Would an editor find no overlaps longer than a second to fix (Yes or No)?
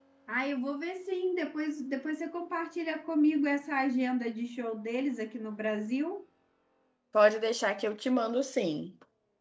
Yes